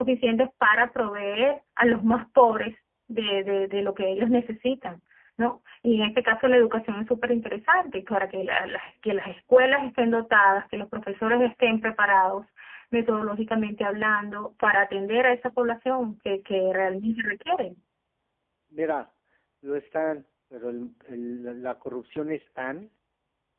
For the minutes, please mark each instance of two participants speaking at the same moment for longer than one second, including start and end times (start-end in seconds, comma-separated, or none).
none